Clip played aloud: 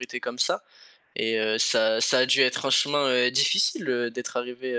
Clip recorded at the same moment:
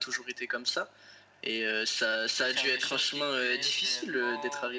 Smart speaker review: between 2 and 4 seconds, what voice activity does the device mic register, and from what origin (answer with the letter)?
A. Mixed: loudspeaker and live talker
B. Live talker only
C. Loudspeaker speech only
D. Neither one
A